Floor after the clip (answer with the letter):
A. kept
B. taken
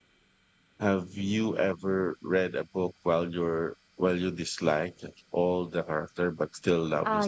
B